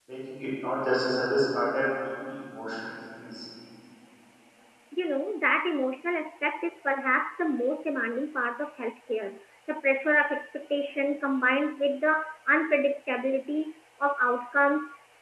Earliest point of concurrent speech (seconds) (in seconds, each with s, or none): none